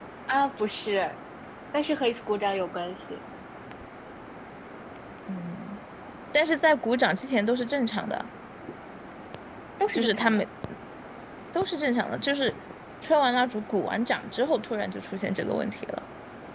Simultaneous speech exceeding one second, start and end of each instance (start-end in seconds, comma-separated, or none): none